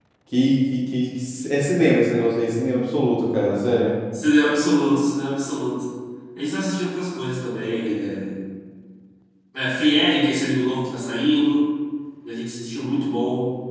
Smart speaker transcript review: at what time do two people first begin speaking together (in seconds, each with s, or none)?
none